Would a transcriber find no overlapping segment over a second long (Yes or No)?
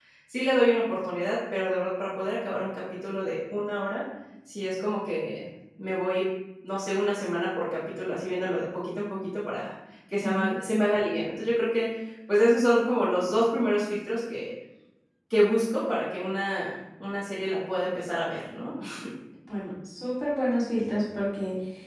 Yes